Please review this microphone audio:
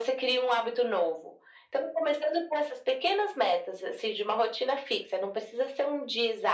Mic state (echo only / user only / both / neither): echo only